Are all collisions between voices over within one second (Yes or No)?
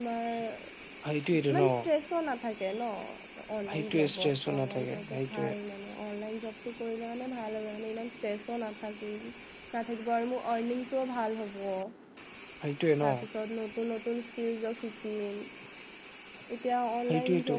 No